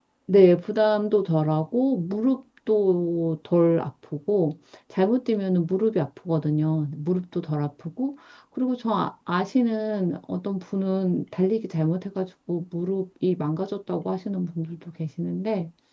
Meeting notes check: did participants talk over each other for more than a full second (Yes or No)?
No